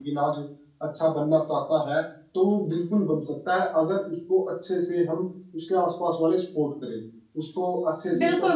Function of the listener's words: taking over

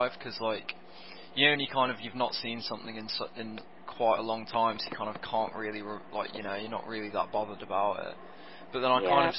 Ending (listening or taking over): listening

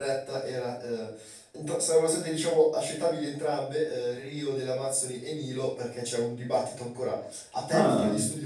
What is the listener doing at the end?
listening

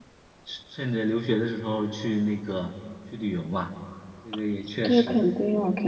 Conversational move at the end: taking over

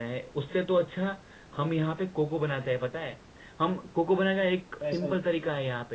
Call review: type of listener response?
listening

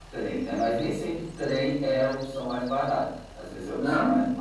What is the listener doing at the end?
listening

